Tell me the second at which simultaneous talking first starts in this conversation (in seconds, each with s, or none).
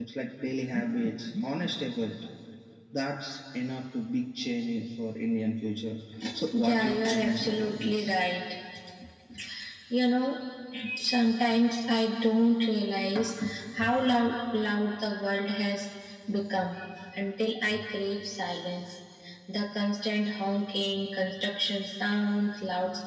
6.5 s